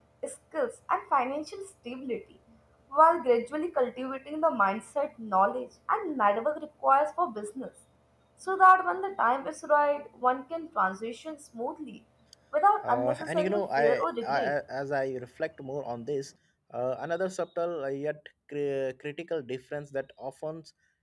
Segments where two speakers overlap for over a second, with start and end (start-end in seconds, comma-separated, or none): 12.8-14.5